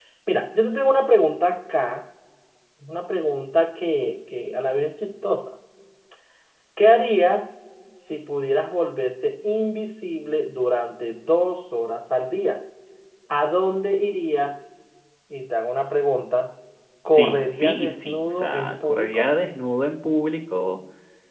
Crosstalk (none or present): present